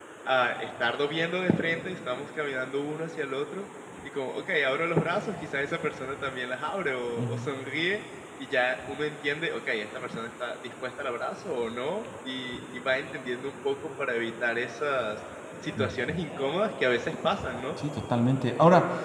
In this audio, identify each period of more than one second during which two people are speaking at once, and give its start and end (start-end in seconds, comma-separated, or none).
none